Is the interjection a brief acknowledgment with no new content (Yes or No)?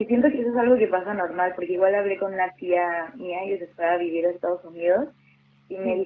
Yes